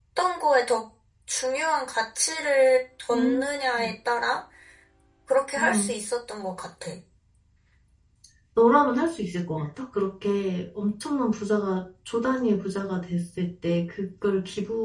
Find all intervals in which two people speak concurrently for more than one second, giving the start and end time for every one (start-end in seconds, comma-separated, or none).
none